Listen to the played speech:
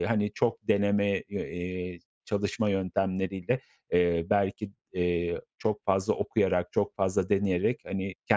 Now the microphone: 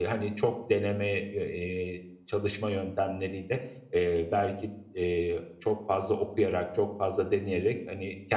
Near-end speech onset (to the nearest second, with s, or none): none